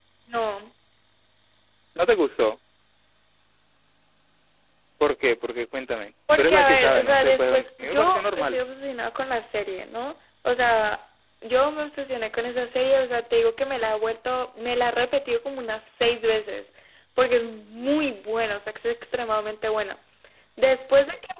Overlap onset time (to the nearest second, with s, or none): 6 s